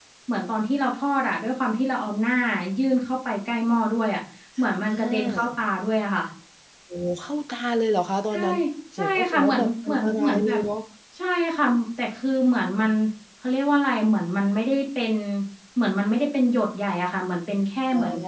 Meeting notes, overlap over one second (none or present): present